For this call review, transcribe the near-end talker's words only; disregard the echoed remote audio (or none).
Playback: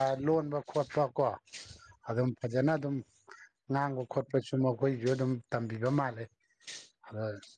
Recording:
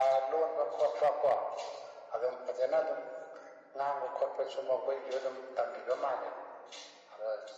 none